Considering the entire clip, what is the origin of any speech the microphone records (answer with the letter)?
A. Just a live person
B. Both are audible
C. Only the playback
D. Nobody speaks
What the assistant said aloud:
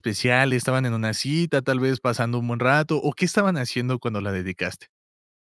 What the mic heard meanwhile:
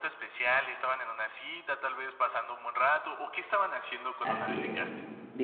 B